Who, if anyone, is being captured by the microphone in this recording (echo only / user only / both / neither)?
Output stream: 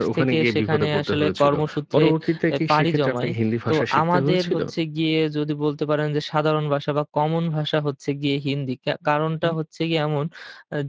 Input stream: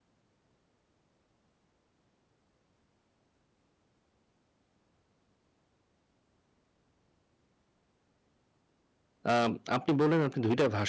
user only